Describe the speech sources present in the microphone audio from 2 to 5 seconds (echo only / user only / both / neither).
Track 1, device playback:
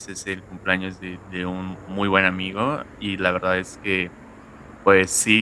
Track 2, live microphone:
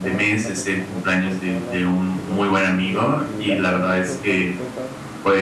both